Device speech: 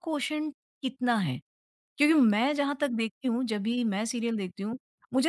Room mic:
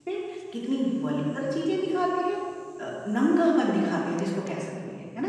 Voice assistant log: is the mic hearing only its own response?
No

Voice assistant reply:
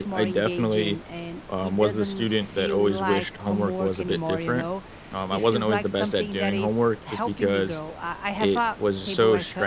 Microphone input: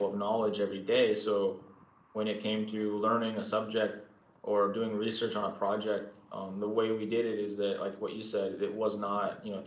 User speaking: Yes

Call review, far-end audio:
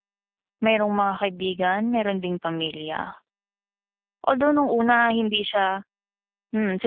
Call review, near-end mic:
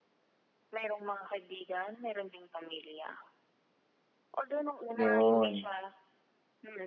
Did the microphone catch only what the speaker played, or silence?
No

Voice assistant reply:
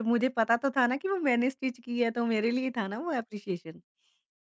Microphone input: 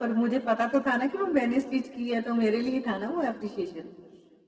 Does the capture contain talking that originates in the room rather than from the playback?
No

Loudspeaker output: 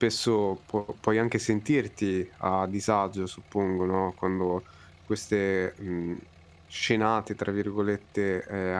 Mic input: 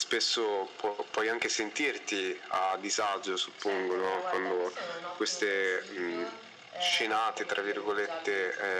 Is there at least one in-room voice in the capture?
Yes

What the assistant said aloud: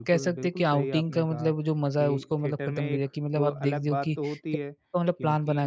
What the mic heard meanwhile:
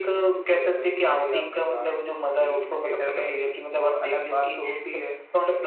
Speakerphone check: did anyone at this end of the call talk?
No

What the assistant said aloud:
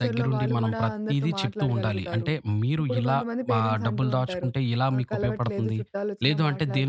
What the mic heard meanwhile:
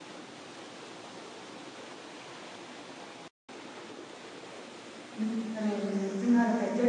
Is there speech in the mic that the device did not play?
Yes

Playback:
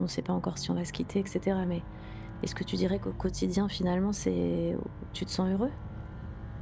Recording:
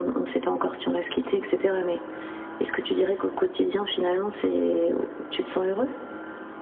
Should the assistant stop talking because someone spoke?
No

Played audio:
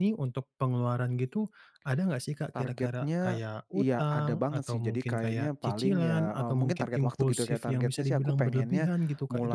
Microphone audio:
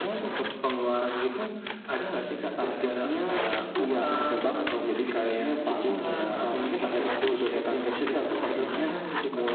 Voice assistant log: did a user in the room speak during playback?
No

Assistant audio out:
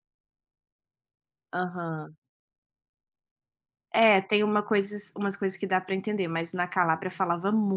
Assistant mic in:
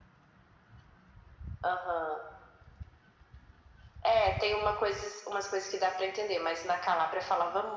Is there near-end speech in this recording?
No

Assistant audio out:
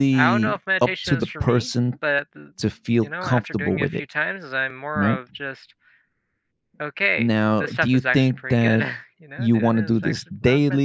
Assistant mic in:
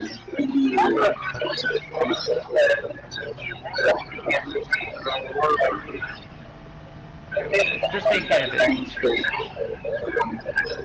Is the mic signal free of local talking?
No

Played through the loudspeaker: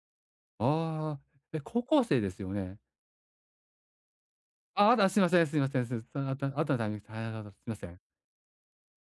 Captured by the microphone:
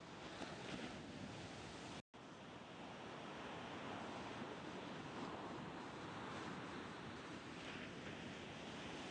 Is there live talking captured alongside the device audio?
No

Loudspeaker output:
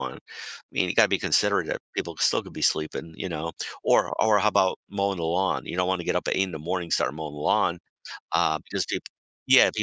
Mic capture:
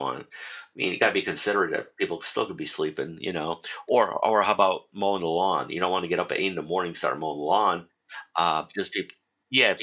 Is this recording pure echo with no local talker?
Yes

